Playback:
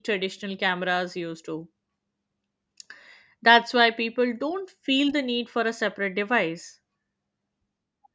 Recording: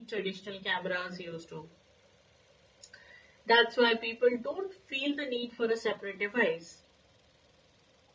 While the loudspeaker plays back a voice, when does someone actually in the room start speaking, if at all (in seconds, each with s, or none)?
none